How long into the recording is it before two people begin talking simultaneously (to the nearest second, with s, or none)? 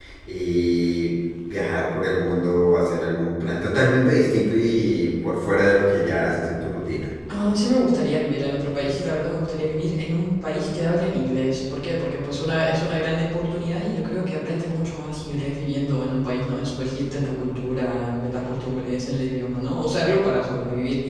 none